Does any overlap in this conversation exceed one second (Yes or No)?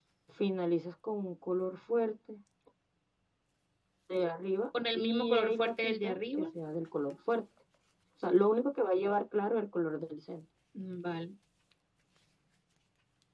Yes